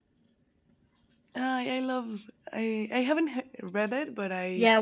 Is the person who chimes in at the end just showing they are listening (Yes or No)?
No